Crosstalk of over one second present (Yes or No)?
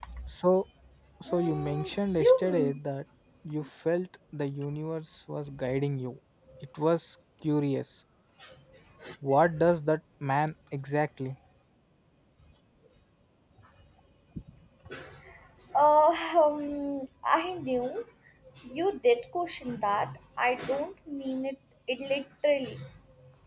Yes